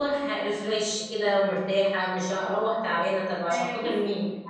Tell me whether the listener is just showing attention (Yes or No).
No